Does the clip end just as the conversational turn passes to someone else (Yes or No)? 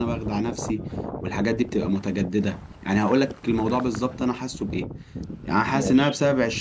No